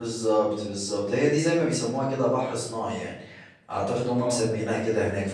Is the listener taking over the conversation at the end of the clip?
No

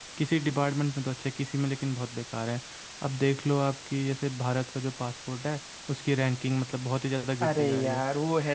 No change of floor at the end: No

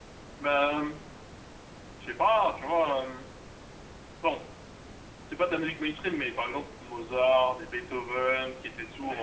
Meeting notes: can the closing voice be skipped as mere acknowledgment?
No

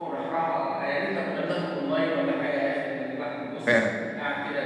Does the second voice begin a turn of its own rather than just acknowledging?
No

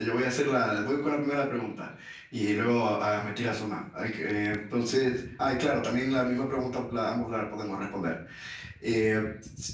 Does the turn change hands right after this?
No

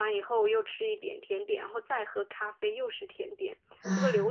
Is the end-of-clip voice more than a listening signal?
No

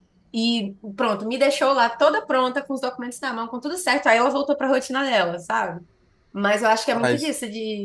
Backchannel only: Yes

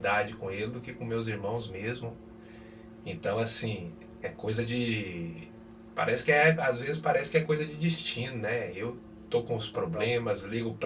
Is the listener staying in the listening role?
Yes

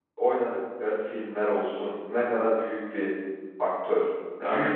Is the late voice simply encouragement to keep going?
No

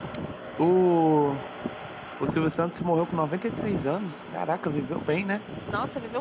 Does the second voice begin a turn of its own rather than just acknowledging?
Yes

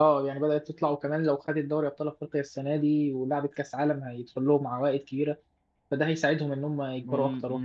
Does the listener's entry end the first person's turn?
Yes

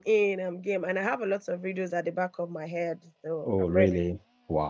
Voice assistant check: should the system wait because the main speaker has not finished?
No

